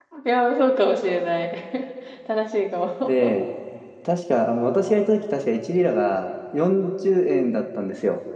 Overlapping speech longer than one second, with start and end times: none

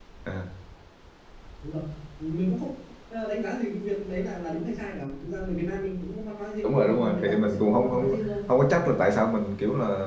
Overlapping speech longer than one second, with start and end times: 6.6-8.1

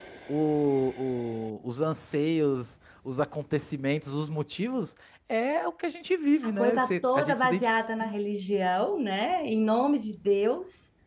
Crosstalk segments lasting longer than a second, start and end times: 6.4-7.7

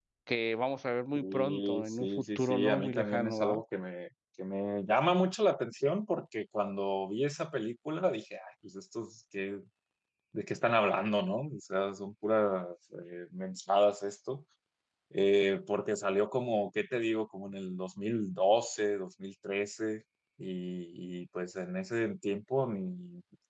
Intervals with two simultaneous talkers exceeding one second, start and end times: 1.2-3.6

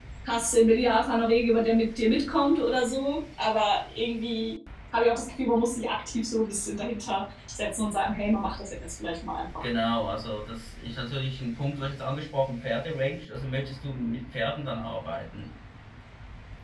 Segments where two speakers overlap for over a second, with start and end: none

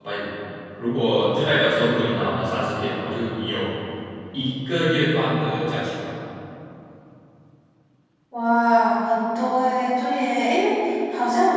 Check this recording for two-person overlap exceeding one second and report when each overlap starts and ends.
none

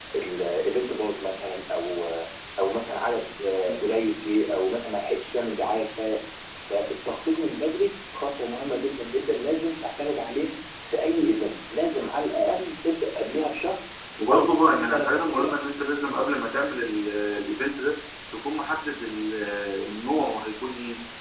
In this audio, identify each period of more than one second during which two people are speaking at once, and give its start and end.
14.3-15.5

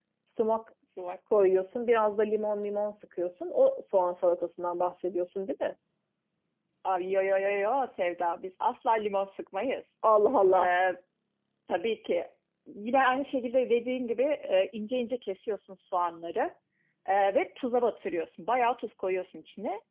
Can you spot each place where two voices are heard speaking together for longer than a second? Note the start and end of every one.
none

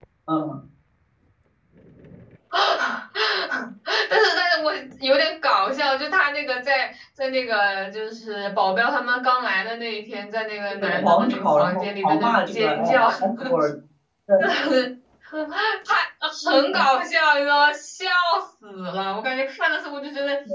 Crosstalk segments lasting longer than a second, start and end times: 10.7-13.3

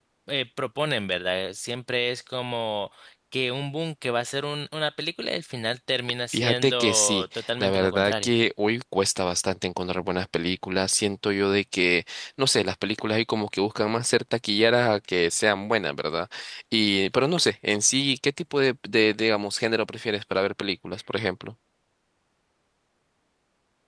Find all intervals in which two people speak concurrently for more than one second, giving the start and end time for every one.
6.3-8.3

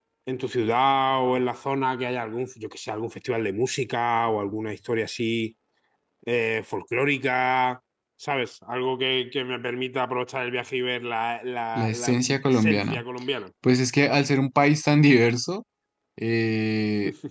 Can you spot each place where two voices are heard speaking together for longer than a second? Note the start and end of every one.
11.8-13.0

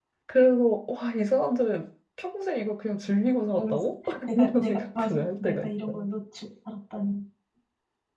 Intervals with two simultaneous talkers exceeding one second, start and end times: 3.6-6.0

